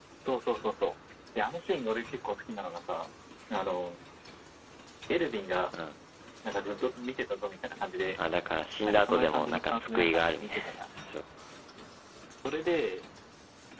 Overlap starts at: 8.8 s

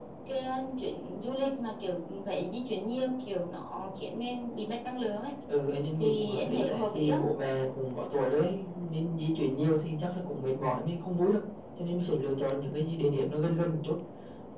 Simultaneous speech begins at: 6.0 s

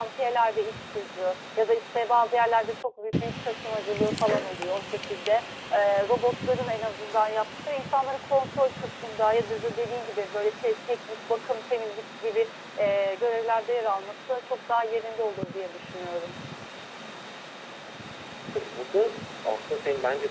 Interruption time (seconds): none

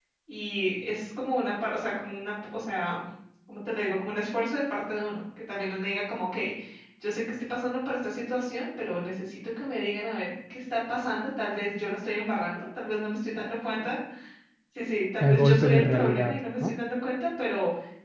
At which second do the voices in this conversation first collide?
15.2 s

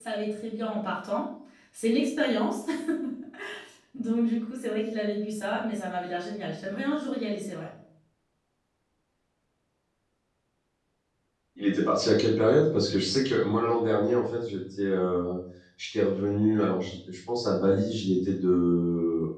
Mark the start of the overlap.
none

